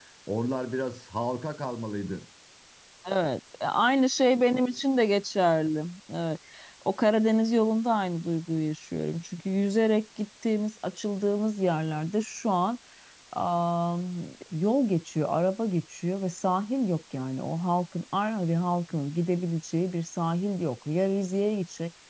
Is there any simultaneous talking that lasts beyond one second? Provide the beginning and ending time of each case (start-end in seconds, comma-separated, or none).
none